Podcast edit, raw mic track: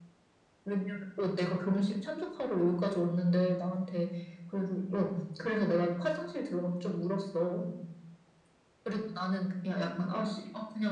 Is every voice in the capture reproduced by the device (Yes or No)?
Yes